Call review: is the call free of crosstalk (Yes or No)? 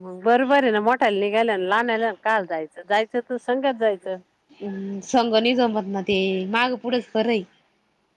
Yes